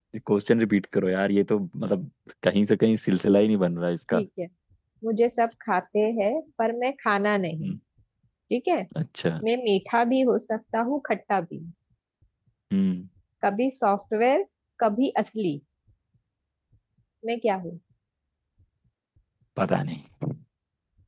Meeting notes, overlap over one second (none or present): none